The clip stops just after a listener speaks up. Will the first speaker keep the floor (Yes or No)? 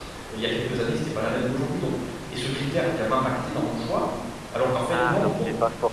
No